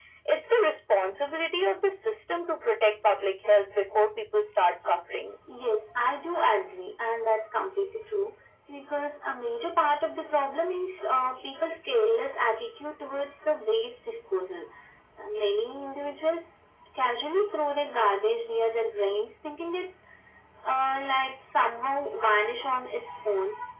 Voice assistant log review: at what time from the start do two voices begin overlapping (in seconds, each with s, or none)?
none